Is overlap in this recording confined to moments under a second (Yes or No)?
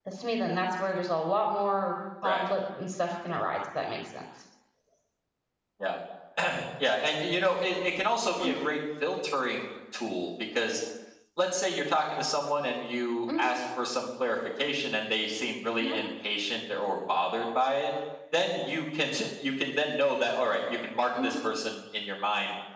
Yes